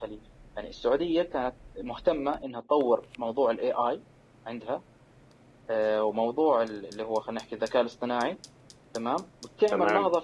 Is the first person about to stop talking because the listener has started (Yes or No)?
No